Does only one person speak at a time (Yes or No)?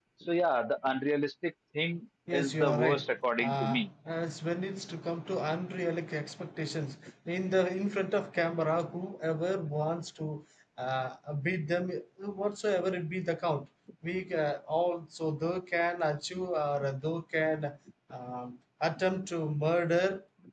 No